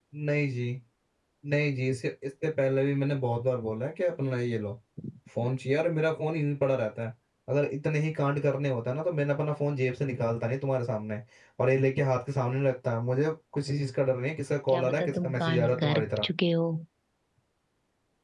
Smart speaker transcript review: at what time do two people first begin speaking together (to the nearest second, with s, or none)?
15 s